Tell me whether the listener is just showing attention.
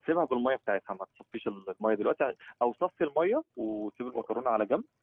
Yes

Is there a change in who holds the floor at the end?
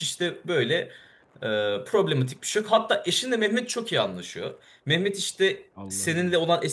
No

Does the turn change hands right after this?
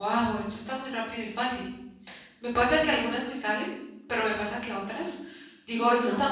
No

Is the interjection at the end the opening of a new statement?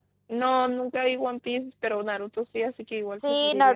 Yes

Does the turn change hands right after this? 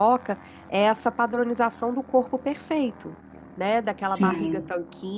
No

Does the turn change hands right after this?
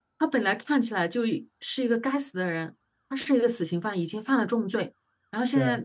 No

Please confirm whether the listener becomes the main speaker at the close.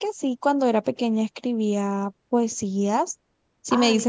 No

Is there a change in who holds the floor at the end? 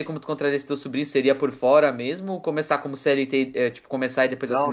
Yes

